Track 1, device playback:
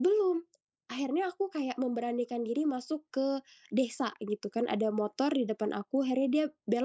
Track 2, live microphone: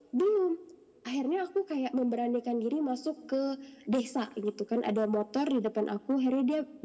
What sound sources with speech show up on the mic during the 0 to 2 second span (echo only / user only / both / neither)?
echo only